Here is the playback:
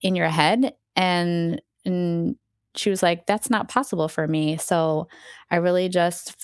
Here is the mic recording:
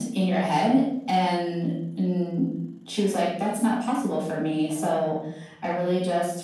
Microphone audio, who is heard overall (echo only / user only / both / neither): echo only